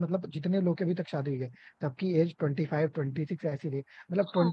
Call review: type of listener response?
listening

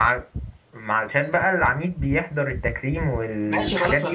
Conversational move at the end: taking over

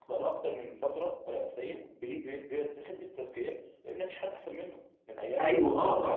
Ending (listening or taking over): taking over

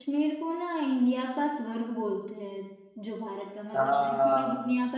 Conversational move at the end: listening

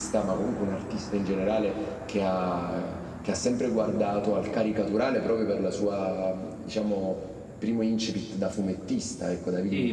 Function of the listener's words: taking over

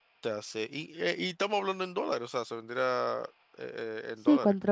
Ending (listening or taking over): taking over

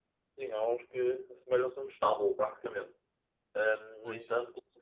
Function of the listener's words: listening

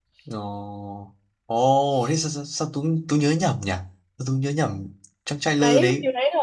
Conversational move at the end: taking over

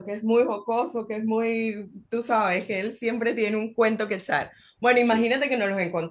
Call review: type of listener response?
listening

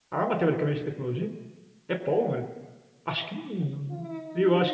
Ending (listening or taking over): taking over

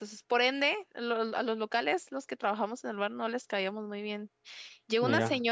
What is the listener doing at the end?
listening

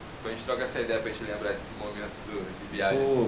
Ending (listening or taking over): taking over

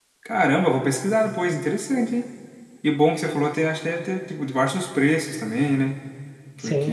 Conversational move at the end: taking over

